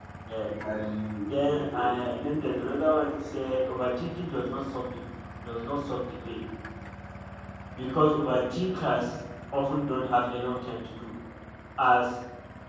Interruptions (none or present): present